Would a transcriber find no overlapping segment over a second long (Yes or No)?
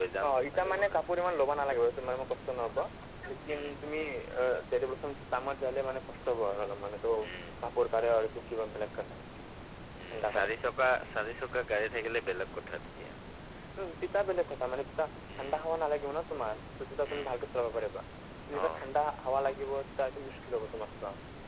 Yes